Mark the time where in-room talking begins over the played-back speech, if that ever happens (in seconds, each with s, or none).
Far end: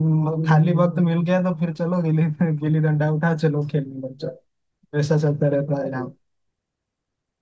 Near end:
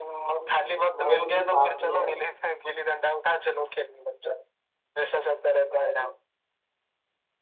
0.9 s